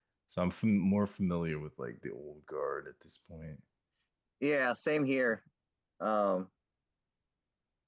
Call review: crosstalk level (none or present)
none